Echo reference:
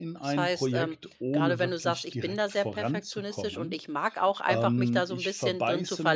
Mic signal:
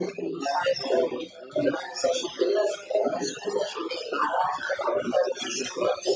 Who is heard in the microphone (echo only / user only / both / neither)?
echo only